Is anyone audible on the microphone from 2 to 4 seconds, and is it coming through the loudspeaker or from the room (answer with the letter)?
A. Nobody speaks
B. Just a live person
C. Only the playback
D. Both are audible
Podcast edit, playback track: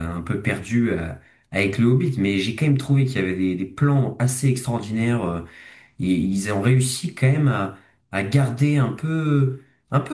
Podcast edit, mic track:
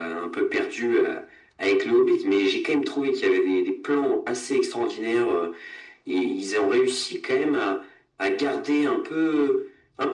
C